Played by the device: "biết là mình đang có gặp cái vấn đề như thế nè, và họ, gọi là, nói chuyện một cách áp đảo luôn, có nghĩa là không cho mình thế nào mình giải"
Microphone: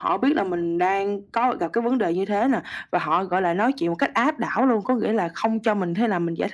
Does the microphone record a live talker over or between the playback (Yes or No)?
No